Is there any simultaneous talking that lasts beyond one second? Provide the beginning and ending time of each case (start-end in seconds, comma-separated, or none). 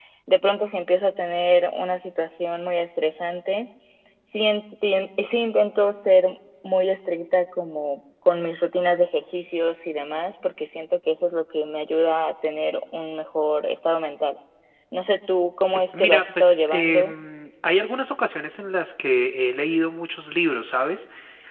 15.7-17.1